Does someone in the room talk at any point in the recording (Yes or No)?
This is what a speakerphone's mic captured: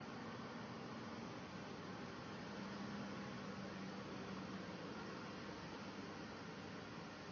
No